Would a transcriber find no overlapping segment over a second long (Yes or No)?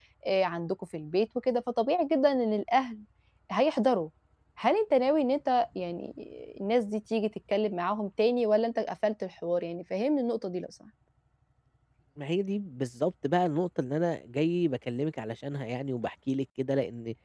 Yes